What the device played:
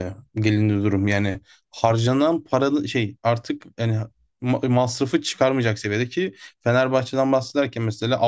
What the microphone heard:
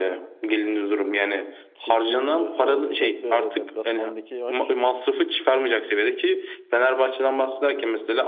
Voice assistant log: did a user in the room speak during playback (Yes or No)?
Yes